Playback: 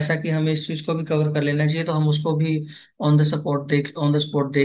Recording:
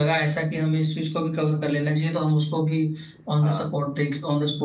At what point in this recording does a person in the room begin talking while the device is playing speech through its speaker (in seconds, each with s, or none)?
3.4 s